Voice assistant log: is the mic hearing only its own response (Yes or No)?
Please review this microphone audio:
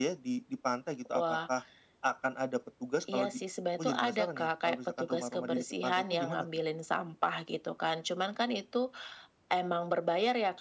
Yes